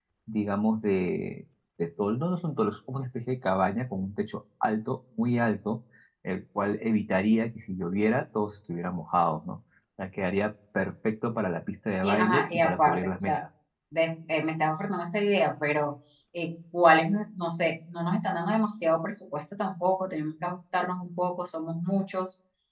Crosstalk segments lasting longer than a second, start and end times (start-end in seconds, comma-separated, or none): 12.0-13.4